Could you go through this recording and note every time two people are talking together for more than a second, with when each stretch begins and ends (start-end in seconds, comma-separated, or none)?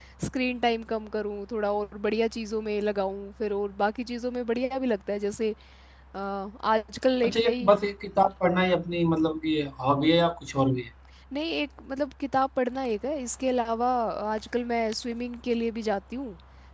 none